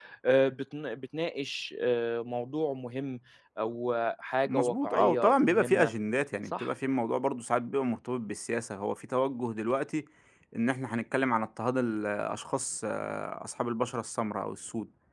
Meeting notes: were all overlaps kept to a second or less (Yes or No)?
No